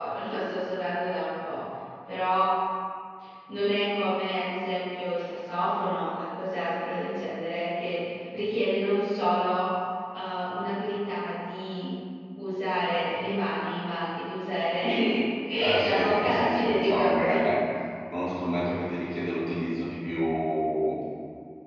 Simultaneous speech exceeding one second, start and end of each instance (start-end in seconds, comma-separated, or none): 15.8-17.4